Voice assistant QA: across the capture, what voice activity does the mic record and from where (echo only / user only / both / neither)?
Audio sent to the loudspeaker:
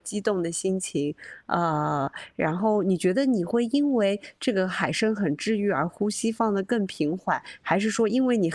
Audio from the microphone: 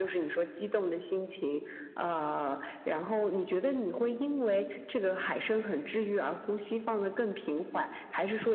echo only